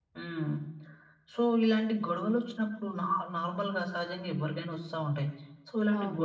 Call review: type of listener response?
listening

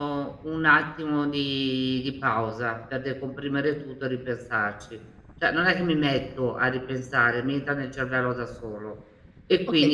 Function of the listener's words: taking over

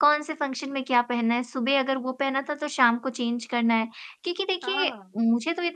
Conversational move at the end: listening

